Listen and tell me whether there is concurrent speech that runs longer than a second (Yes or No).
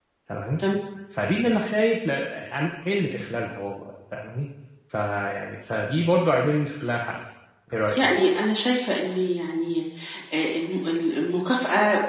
No